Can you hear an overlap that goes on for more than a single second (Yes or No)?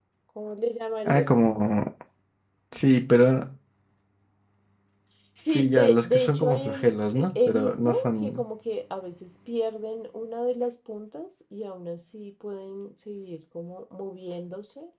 Yes